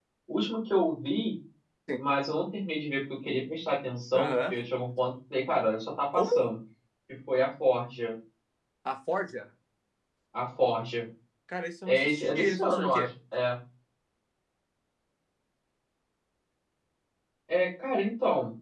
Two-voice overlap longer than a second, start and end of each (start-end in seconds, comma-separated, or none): 11.9-13.1